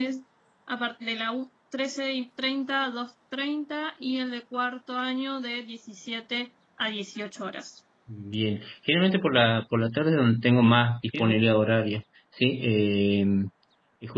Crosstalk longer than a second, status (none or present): none